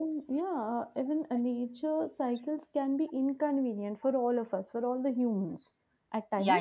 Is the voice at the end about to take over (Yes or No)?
Yes